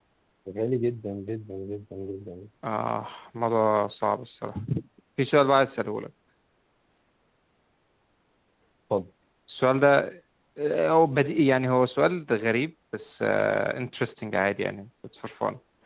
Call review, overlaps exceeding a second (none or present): none